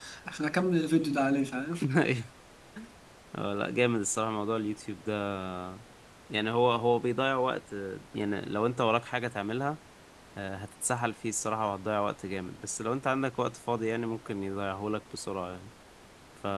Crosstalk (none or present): none